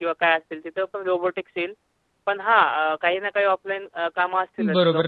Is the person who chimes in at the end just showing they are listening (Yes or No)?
No